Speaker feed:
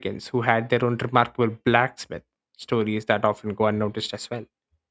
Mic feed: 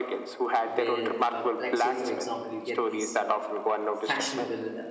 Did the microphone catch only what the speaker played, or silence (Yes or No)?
No